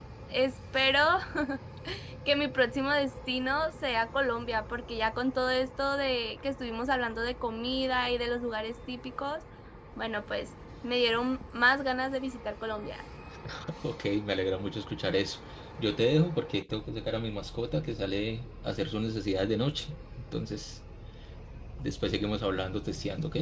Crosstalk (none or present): none